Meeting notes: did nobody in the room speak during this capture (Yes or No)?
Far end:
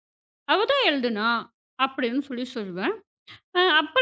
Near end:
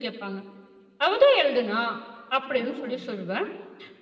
No